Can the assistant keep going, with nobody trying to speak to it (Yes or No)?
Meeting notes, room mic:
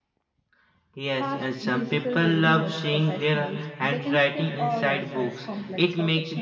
No